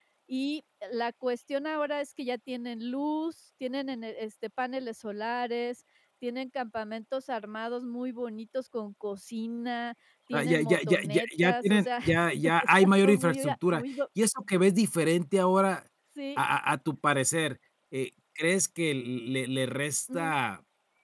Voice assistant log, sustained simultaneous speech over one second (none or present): present